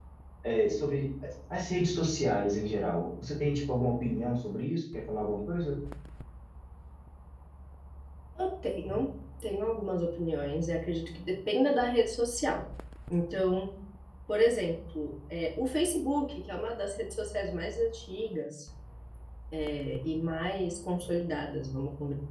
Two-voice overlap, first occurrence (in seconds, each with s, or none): none